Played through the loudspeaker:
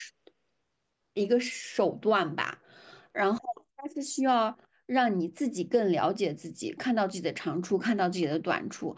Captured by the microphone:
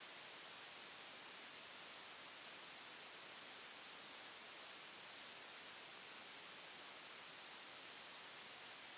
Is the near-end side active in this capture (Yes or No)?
No